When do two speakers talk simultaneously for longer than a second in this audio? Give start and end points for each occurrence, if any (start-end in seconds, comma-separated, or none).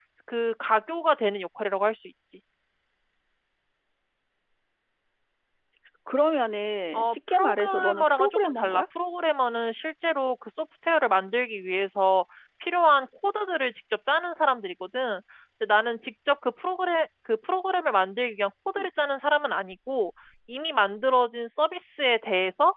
6.9-8.8